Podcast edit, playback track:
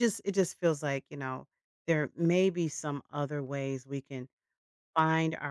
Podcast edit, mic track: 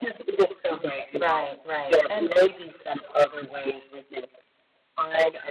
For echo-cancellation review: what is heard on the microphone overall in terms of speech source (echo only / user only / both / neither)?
both